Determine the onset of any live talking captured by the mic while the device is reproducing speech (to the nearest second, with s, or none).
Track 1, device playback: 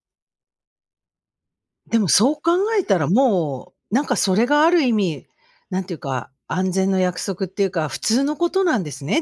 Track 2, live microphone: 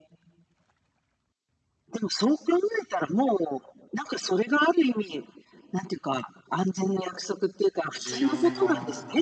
8 s